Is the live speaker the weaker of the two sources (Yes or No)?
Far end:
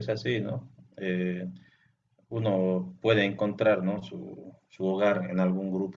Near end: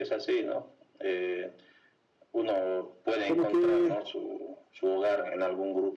No